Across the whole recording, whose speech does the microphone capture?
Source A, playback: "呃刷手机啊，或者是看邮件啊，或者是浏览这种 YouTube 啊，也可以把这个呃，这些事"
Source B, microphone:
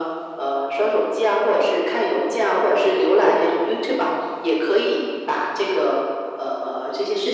echo only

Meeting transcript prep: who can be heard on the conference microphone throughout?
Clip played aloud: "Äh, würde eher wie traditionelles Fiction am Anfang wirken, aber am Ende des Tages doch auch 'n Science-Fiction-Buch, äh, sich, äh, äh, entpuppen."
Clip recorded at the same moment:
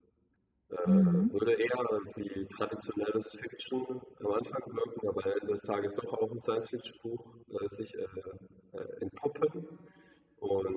both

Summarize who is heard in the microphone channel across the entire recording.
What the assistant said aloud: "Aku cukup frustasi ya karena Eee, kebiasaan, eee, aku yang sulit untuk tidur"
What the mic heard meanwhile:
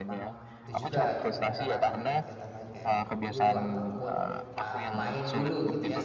both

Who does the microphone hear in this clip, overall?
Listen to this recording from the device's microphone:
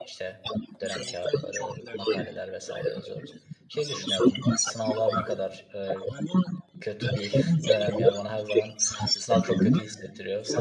both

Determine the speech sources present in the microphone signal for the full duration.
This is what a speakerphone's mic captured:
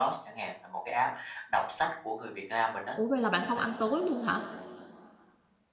both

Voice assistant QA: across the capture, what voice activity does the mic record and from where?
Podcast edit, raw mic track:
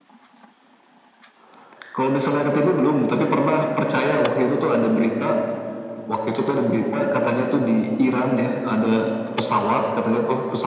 echo only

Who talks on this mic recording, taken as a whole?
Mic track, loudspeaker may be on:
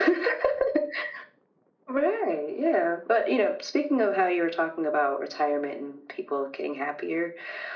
echo only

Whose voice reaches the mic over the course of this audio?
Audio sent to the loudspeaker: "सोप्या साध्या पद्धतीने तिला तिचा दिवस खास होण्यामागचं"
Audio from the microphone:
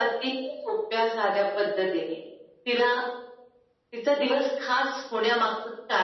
echo only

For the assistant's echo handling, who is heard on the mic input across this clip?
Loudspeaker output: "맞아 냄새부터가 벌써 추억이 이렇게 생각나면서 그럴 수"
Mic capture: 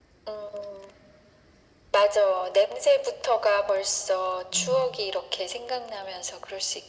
both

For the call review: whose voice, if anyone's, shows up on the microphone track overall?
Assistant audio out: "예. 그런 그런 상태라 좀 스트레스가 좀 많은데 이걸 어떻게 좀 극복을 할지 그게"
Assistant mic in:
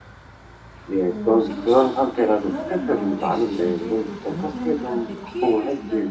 both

